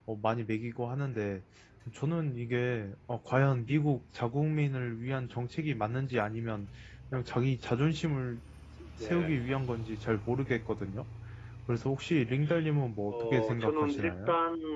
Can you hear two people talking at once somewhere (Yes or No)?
Yes